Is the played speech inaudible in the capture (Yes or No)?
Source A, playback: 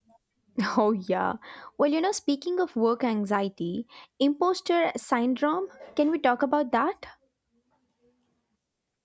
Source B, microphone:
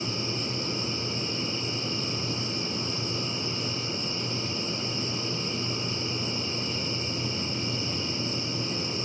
Yes